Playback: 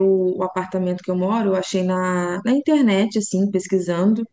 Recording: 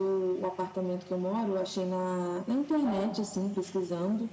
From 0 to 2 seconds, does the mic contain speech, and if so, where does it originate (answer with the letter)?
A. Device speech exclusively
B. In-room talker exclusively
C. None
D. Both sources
A